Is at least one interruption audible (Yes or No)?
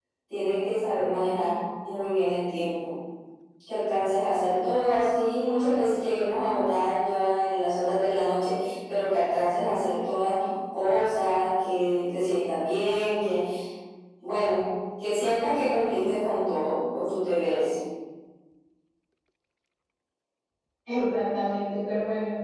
No